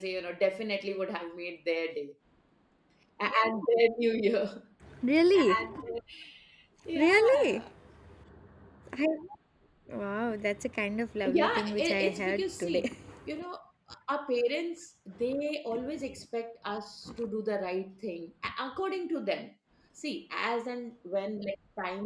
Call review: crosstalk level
present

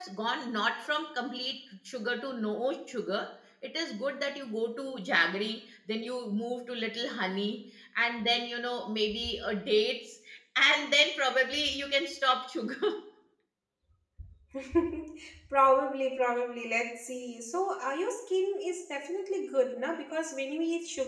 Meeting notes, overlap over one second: none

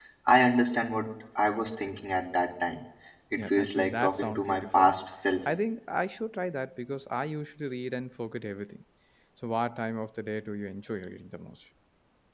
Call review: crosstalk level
present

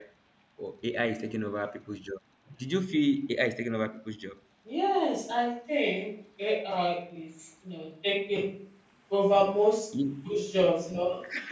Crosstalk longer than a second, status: none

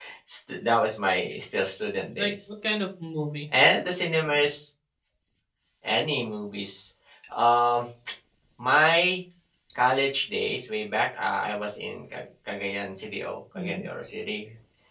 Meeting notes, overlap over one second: none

